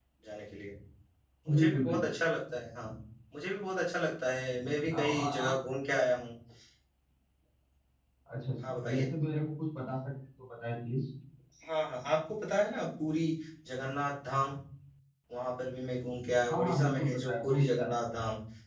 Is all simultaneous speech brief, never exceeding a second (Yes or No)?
No